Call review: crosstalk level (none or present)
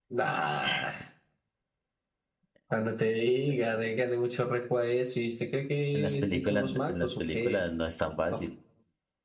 present